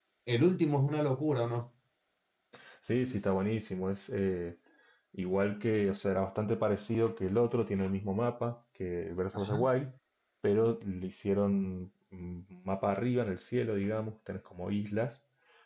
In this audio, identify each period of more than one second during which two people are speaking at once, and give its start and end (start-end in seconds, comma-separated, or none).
none